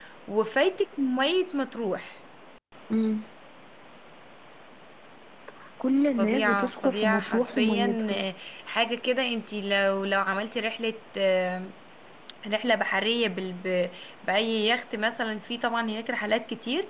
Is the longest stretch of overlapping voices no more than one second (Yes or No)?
No